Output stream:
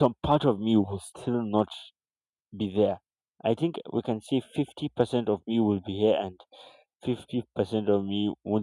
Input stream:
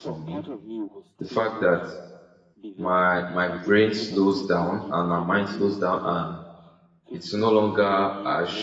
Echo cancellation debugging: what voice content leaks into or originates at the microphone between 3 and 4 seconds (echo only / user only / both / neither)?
both